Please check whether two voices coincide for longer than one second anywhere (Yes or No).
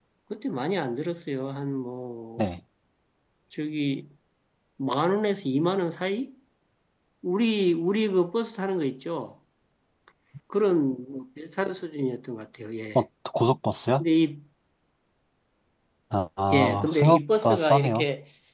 Yes